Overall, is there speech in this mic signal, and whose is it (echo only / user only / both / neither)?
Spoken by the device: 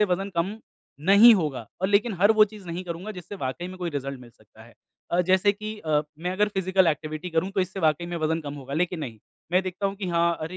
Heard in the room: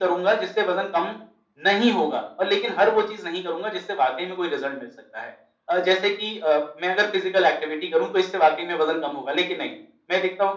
echo only